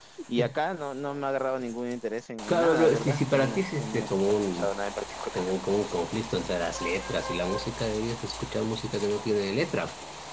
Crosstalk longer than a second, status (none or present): present